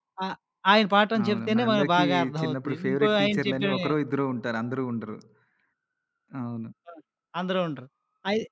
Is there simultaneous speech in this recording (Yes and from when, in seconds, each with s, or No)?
Yes, from 1.2 s